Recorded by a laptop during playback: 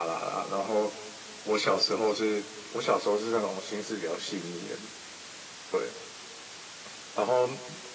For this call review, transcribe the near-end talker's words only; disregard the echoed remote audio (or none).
none